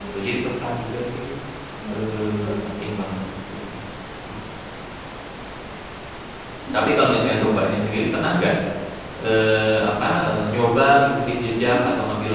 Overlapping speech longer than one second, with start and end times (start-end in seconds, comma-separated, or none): 1.9-3.2